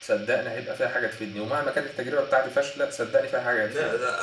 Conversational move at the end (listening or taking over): taking over